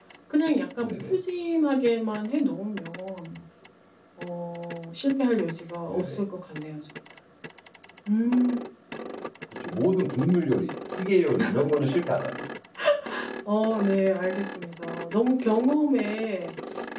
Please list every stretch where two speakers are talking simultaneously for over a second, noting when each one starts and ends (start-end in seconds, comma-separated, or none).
none